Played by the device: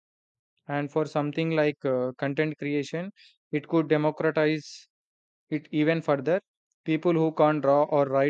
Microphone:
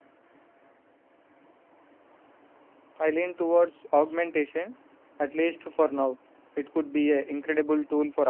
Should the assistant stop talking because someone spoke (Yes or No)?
Yes